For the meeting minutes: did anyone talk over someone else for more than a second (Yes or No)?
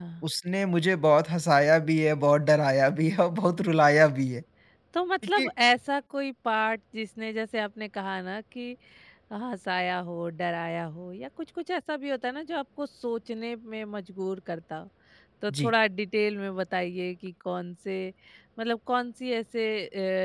No